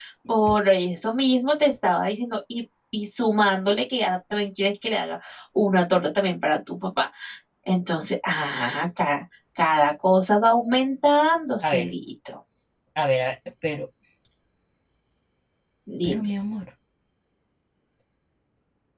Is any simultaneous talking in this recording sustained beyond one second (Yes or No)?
No